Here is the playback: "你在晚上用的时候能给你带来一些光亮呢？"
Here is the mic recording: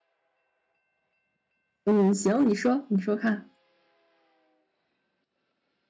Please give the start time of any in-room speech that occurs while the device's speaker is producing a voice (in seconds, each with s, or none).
1.8 s